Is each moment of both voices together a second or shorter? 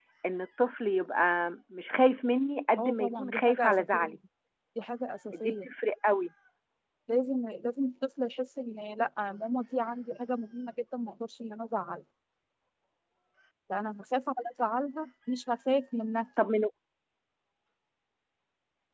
No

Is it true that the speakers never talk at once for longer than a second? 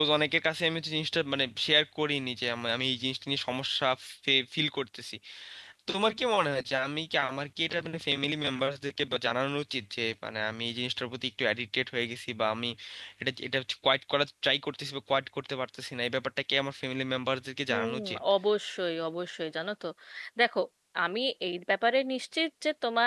Yes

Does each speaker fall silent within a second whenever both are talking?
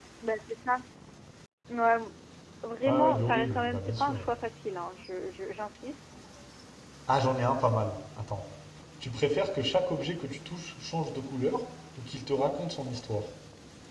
No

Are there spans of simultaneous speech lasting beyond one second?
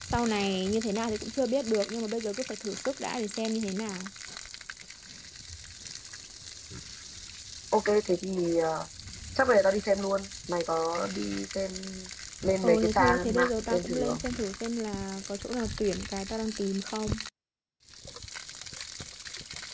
Yes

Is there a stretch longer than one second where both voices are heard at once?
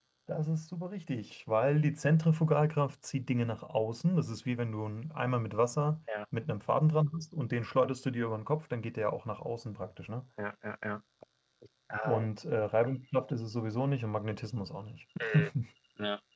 No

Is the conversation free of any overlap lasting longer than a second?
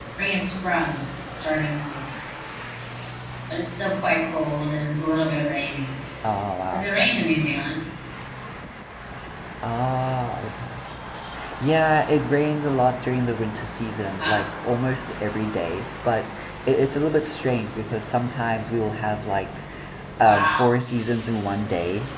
Yes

